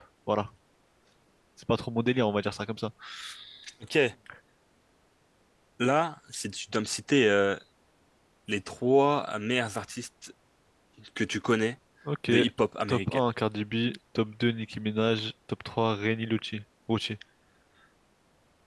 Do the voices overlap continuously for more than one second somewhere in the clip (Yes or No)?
No